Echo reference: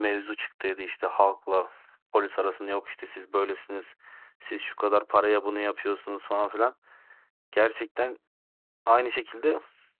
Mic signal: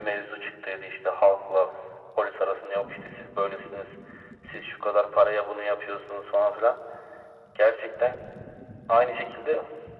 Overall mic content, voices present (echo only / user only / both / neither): echo only